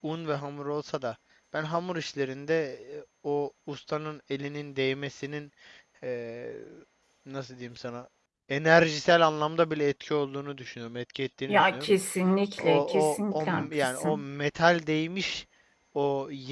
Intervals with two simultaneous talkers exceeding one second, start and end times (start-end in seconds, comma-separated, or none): 12.6-14.2